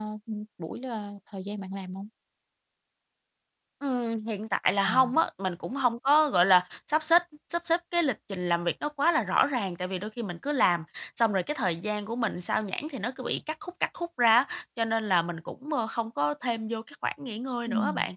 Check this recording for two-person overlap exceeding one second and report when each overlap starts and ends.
none

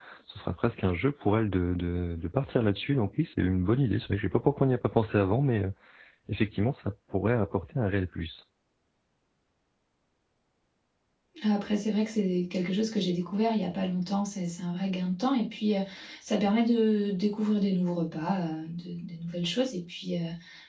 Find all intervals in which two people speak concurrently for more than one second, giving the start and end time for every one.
none

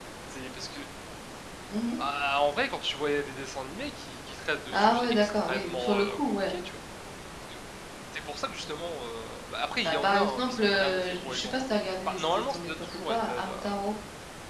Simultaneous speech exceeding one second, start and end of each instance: 4.7-6.5, 9.8-11.5, 12.1-13.5

